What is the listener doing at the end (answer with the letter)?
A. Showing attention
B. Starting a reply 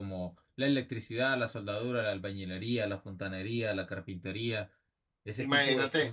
B